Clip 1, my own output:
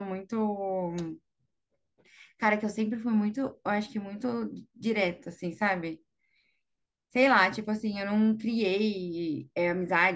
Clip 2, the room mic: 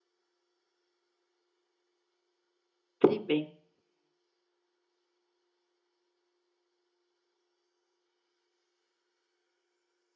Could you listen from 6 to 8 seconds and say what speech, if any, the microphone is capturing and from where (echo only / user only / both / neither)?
neither